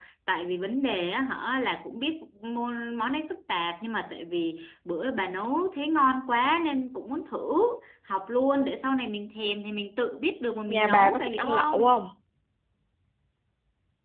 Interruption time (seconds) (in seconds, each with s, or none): 10.7 s